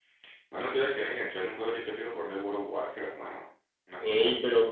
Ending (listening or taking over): taking over